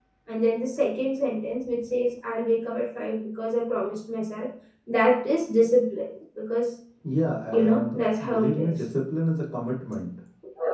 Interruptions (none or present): present